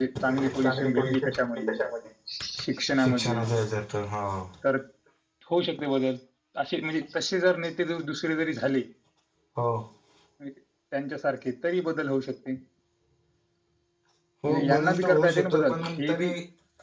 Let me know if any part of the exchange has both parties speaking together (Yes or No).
Yes